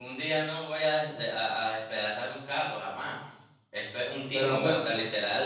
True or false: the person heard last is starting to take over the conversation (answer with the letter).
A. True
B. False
B